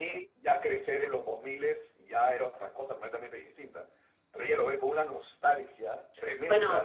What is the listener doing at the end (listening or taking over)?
taking over